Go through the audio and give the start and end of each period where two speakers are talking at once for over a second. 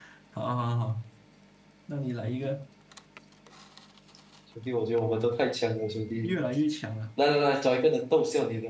none

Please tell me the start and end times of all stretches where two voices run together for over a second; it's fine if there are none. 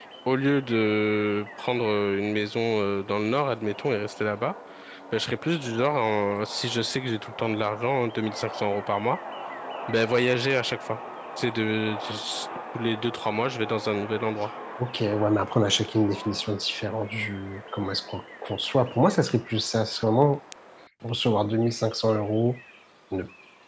none

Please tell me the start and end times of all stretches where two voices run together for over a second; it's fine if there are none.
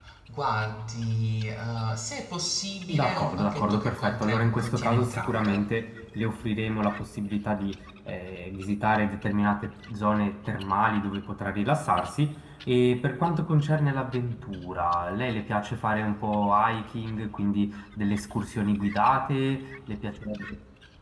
2.9-5.7

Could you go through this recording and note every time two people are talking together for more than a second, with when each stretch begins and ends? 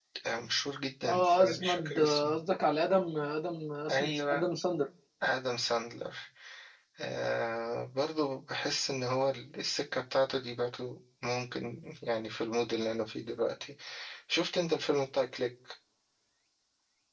1.1-2.4

